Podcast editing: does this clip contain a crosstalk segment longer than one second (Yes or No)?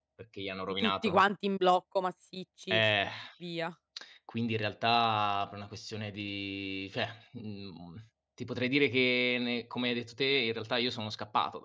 No